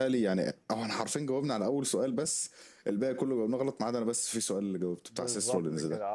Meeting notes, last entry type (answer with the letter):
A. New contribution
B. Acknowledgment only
A